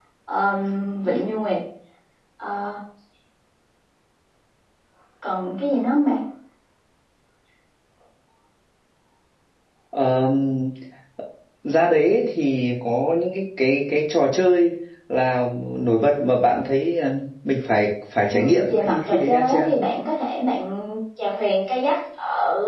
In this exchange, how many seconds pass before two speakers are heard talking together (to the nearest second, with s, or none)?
18 s